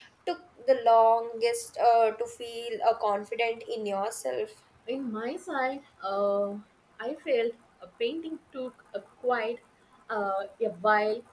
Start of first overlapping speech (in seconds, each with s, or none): none